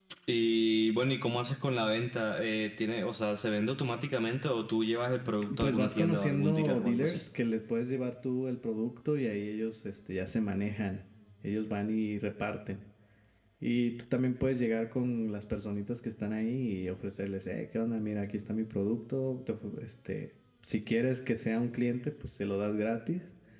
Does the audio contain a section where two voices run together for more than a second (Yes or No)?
Yes